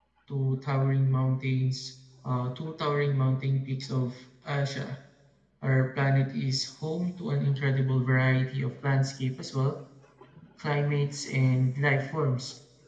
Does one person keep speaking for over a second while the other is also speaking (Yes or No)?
No